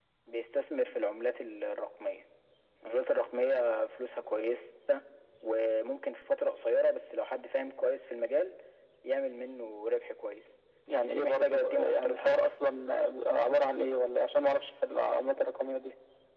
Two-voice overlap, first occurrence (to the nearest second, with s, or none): 11 s